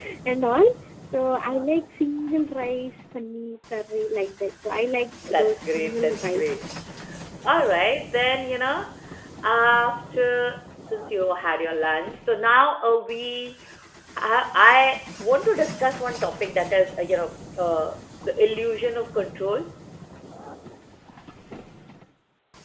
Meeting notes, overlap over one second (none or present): present